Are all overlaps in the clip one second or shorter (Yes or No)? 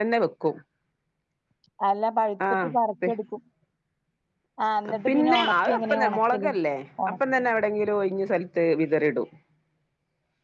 No